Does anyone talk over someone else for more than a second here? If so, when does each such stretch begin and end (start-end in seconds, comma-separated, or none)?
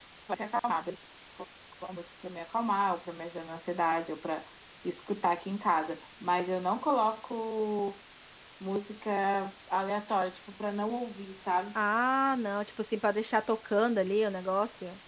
none